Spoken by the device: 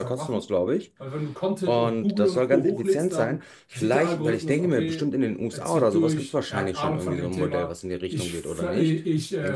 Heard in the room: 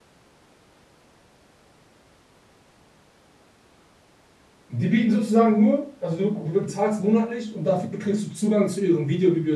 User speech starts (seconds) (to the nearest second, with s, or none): 5 s